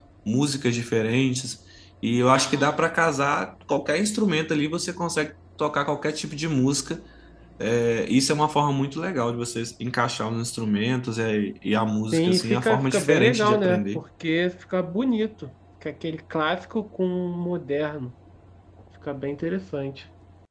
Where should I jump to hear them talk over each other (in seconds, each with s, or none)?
12.1 s